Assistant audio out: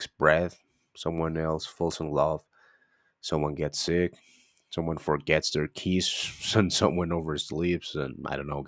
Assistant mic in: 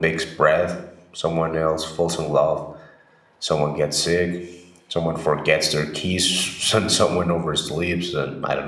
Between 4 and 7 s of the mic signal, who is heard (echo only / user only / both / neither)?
echo only